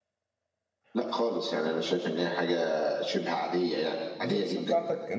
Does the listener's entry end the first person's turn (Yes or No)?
Yes